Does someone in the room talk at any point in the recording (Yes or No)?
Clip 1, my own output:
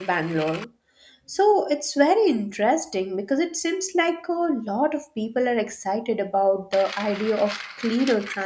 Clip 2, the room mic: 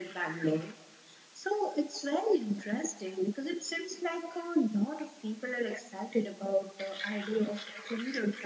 No